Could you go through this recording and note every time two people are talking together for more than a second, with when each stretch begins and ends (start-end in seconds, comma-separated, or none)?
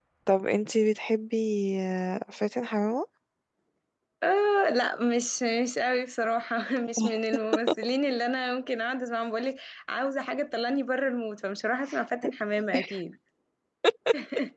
none